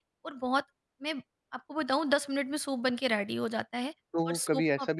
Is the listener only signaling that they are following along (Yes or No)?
No